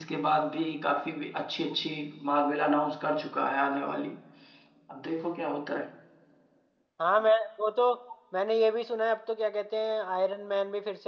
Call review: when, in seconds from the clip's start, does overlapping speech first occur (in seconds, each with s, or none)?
none